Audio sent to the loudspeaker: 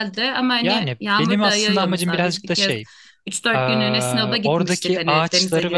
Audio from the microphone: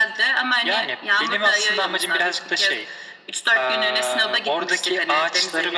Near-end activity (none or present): none